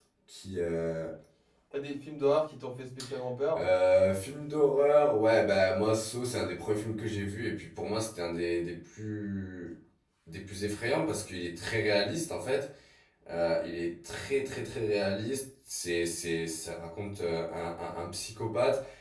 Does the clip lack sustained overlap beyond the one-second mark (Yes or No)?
Yes